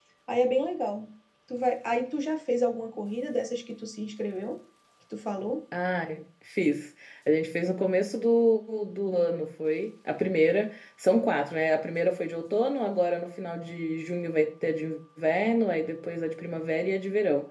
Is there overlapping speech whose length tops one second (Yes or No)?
No